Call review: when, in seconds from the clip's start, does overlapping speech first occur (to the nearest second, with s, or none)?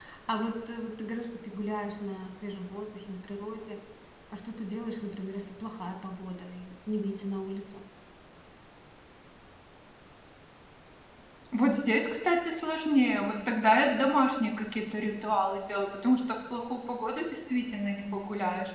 none